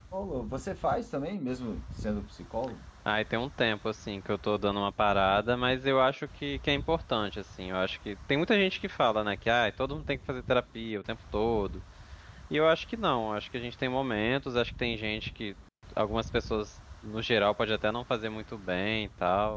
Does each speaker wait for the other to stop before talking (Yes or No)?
Yes